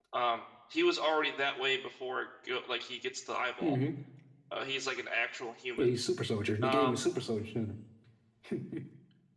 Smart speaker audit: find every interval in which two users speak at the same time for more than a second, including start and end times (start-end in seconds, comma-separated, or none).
none